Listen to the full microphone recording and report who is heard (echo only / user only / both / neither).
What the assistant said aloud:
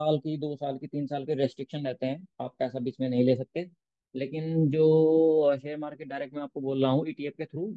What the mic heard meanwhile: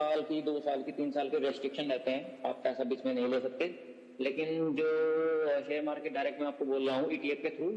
echo only